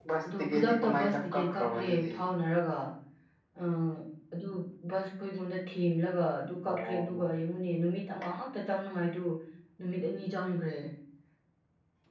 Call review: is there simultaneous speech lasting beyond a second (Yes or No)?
Yes